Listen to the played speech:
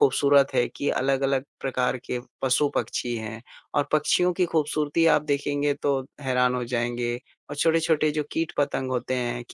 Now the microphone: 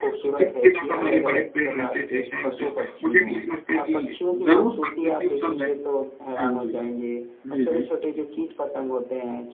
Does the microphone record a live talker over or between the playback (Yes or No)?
Yes